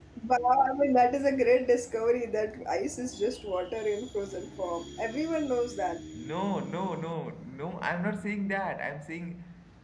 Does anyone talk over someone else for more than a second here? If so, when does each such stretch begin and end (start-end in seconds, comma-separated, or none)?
none